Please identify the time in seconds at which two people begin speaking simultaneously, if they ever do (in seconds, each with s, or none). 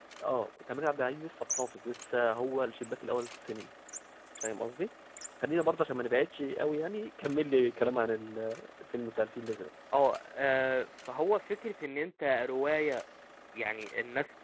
none